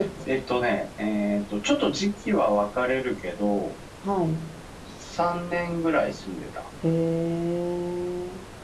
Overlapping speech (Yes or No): No